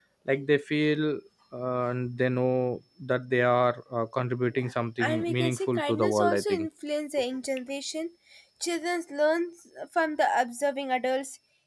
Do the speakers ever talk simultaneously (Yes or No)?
Yes